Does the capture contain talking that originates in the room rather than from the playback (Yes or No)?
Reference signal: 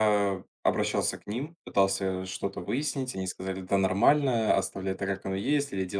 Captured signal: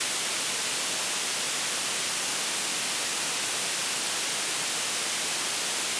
No